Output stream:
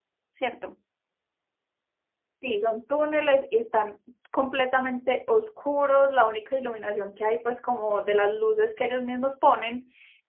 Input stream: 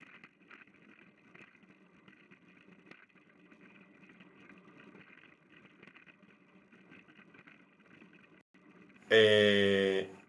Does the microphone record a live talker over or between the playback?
Yes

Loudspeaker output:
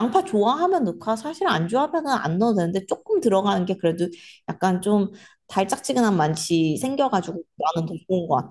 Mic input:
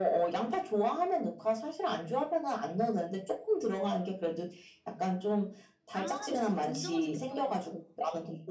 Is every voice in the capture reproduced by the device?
No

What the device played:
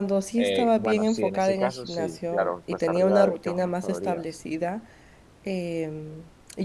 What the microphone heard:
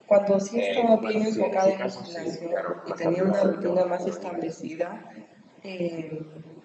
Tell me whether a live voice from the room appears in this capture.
No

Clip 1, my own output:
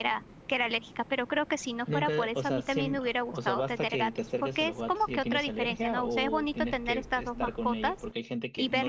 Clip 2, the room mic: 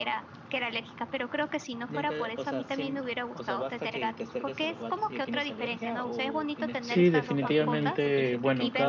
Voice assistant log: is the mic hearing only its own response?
No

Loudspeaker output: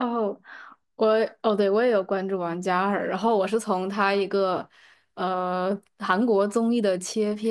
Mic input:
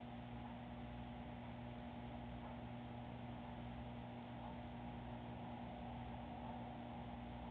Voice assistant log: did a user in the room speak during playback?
No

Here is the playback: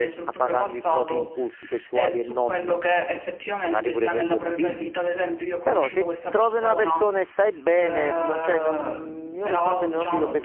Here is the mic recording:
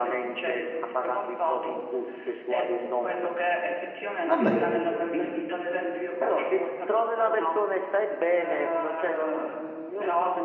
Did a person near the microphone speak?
Yes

